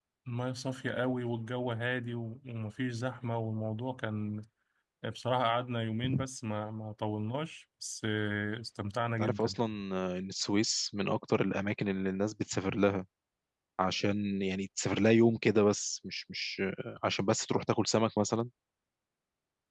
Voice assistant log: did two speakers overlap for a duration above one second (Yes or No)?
No